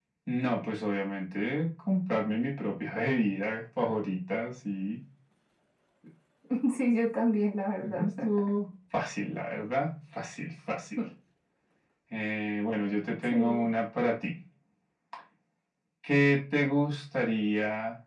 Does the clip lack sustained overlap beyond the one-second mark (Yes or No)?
Yes